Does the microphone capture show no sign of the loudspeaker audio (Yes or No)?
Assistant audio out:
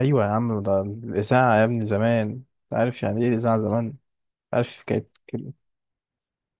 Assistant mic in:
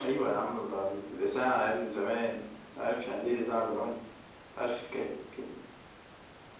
No